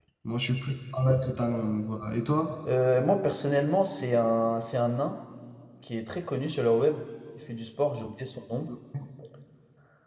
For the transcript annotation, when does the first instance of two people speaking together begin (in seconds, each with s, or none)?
none